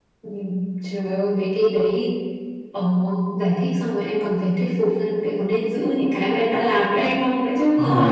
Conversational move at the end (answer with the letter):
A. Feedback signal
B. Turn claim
B